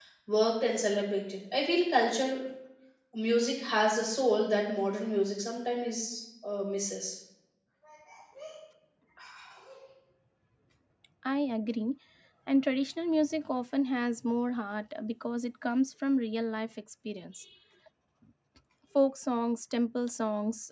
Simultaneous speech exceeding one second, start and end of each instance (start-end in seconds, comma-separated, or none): none